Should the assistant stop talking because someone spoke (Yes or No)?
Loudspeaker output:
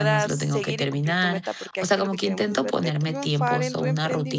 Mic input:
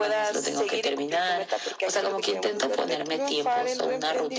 No